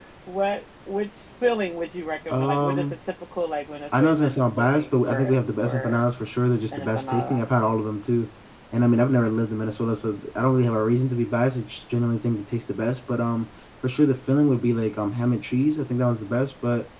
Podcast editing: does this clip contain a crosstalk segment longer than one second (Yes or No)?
Yes